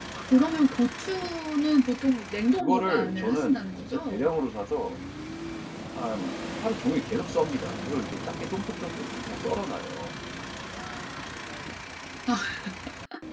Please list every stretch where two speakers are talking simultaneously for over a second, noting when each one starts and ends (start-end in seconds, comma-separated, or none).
2.4-4.3